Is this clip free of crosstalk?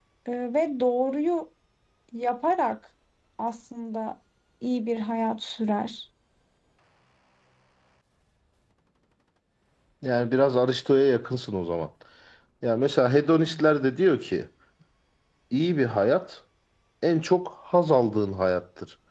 Yes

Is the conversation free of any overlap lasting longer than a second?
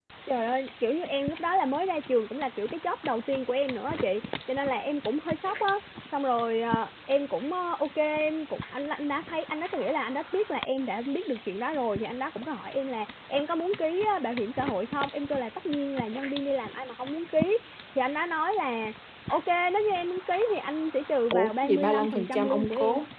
No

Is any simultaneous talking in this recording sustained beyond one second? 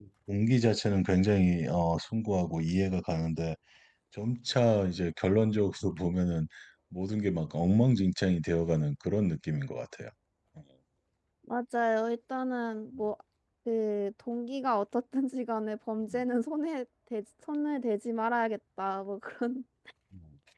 No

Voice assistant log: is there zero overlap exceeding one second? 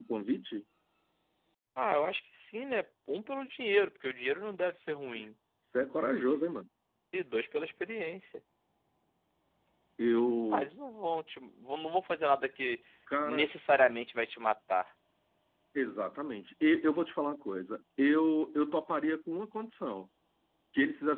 Yes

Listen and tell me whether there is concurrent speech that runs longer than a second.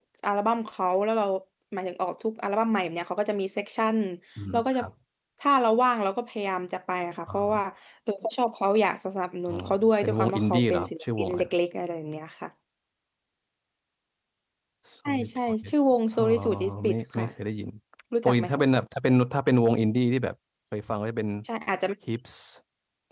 Yes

